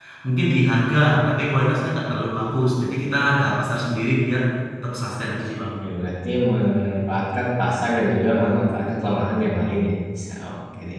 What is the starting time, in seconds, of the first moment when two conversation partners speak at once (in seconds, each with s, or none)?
none